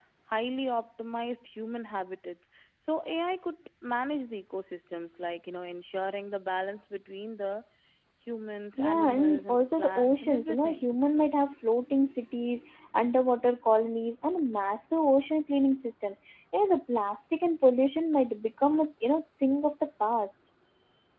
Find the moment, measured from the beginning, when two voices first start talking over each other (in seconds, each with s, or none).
8.8 s